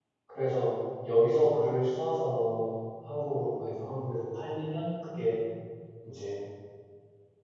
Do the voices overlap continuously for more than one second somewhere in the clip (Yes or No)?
No